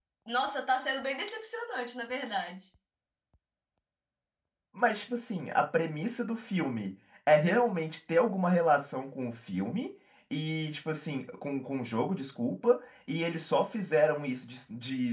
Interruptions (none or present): none